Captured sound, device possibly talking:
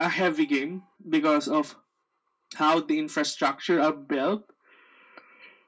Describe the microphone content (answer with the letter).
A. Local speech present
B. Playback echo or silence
B